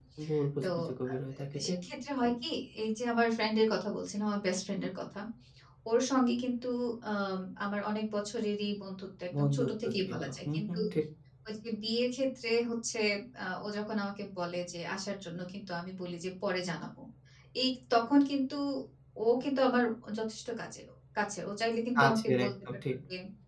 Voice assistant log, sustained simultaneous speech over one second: present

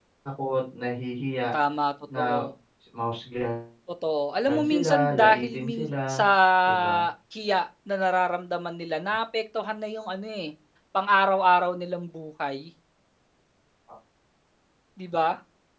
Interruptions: present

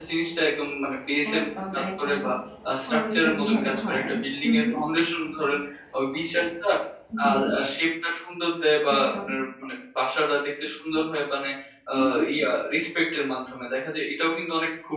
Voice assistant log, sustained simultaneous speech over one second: present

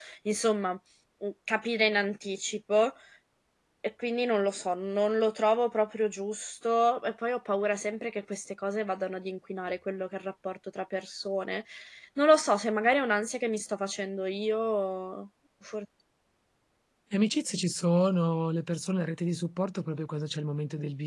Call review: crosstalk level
none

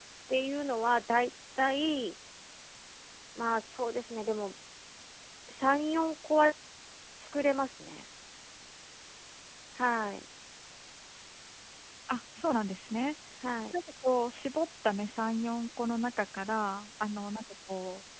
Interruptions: none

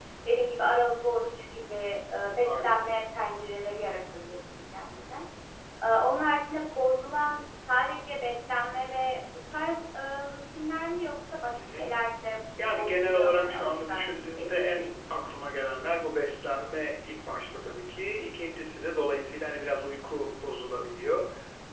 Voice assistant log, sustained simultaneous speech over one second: present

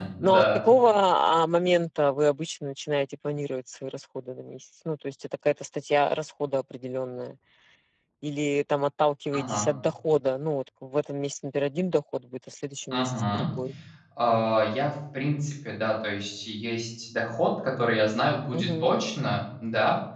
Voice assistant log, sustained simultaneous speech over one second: none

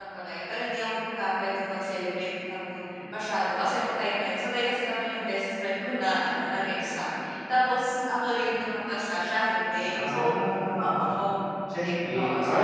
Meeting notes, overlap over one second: none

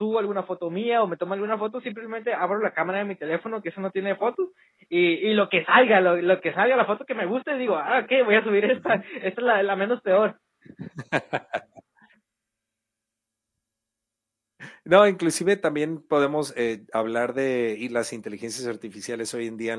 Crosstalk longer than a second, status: none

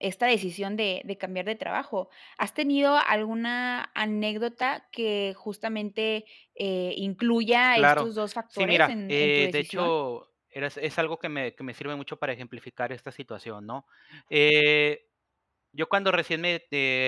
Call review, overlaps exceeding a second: present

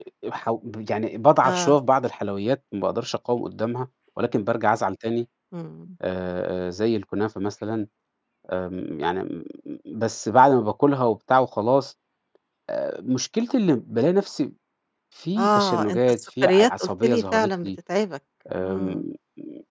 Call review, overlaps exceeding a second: present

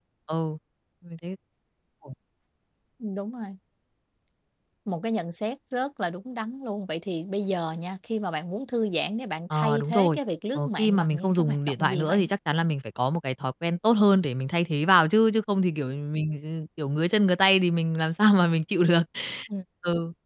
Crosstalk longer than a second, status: present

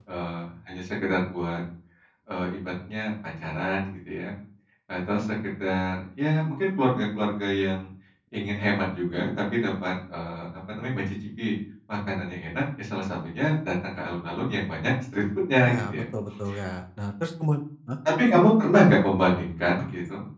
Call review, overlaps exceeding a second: none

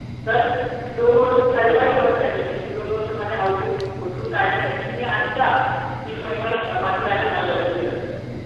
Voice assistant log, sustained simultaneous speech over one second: present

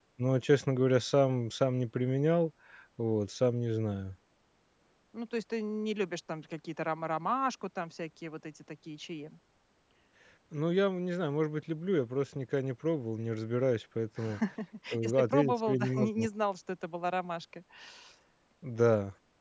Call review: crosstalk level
present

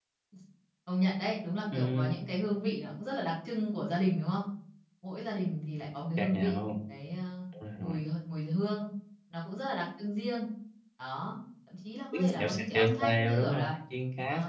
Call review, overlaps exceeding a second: present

